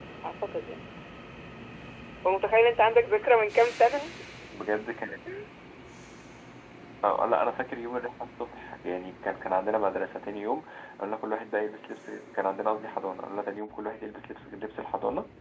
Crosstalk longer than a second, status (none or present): none